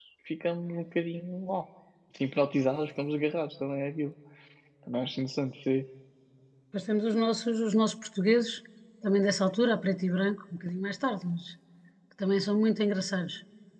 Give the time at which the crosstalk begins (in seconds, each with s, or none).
none